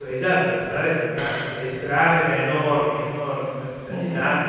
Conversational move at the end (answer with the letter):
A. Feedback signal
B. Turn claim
A